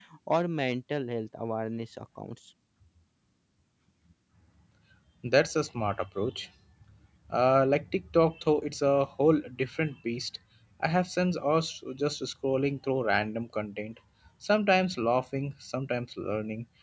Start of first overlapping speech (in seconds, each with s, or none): none